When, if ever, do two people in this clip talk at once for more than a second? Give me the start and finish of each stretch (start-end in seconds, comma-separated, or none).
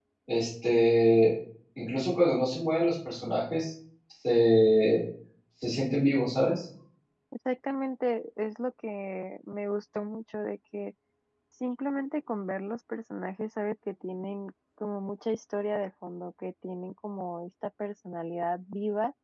none